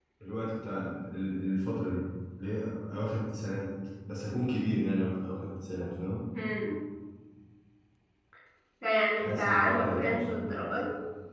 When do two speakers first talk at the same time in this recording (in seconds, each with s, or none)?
9.2 s